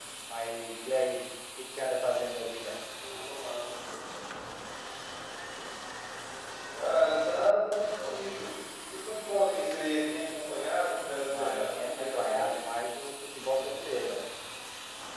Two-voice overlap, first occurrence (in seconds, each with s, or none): 11.2 s